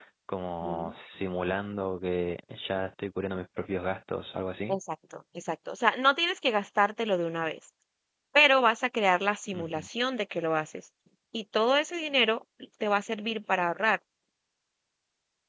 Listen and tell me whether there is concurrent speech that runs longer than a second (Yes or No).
No